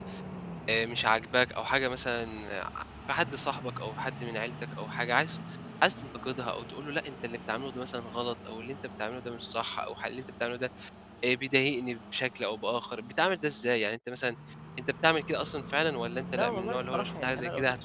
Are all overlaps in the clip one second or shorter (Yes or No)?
No